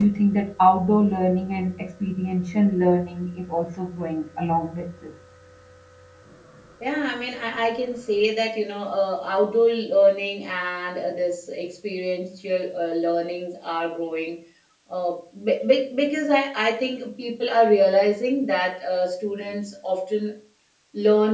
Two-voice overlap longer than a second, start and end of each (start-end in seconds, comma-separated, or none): none